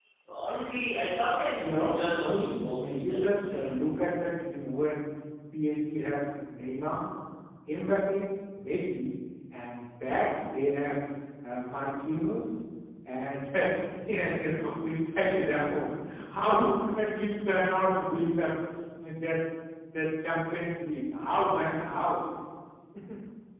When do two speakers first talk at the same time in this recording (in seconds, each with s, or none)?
1.6 s